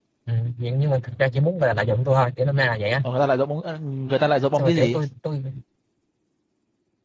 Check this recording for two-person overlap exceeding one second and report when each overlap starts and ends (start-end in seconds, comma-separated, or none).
none